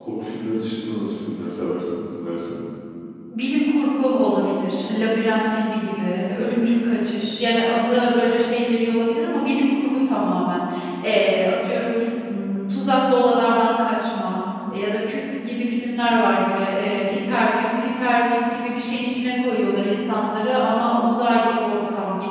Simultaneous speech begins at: none

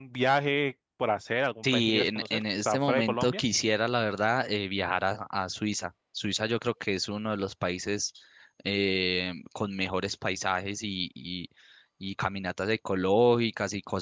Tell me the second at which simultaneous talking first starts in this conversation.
1.6 s

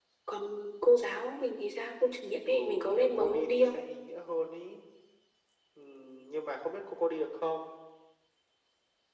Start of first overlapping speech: 2.5 s

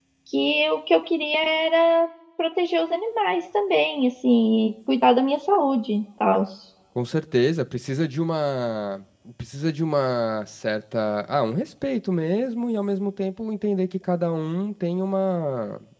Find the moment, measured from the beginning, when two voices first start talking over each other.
none

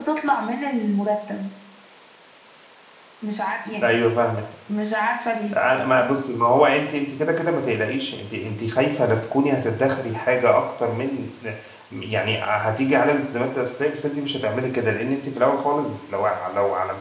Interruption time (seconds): none

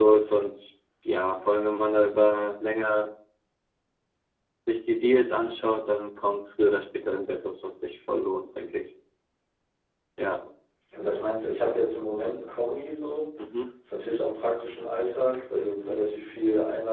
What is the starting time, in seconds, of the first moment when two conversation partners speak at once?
none

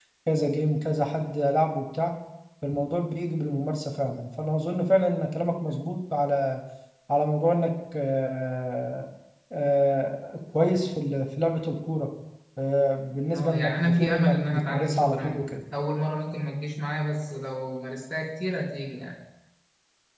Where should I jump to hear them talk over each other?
13.3 s

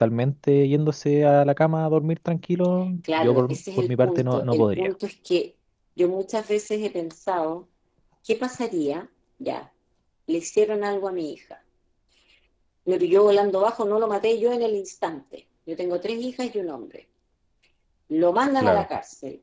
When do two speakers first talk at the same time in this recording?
3.2 s

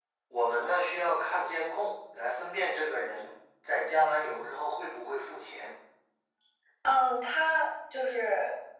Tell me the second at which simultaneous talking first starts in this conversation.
none

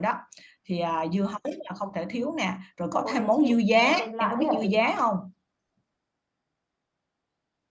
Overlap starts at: 3.0 s

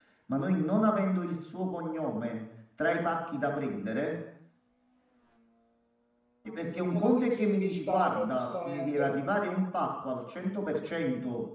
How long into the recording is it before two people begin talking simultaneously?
6.4 s

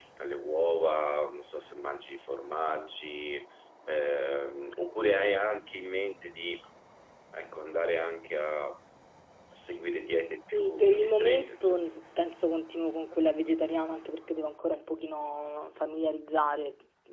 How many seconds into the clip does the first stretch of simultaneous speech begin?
10.5 s

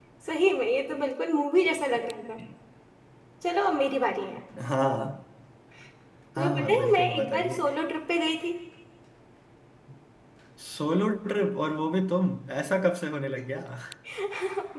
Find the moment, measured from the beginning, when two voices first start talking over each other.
6.4 s

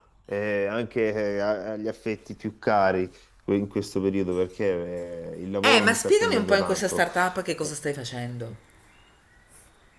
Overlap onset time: 5.6 s

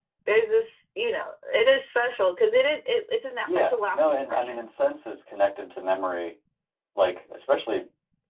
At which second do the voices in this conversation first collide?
3.4 s

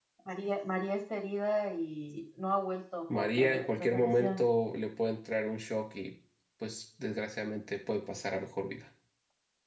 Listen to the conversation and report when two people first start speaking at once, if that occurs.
3.1 s

